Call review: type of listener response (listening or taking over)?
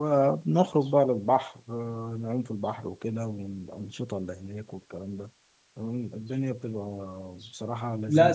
taking over